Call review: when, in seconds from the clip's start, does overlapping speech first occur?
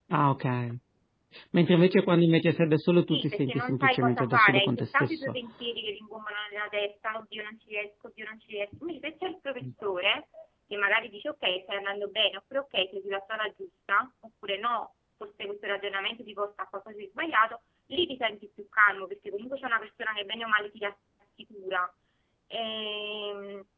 3.1 s

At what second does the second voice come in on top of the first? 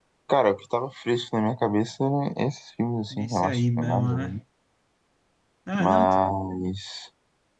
3.1 s

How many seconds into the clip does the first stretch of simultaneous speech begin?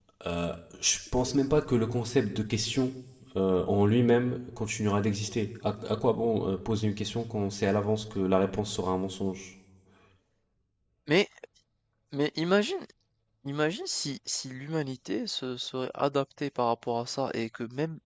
none

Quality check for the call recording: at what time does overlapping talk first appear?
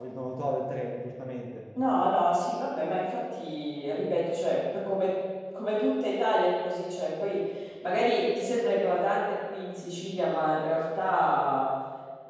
none

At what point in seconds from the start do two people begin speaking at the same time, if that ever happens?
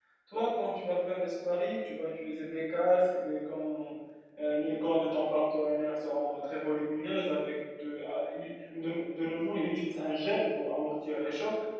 none

